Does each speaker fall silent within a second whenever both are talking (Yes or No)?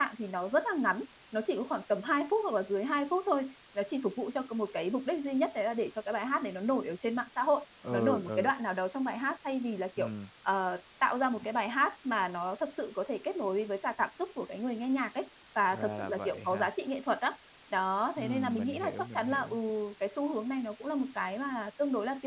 No